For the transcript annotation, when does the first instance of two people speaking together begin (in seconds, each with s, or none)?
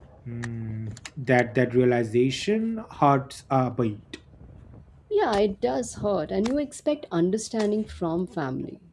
none